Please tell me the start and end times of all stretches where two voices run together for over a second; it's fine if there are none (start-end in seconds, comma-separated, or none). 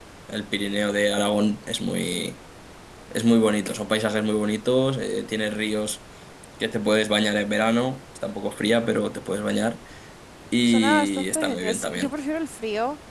10.7-12.1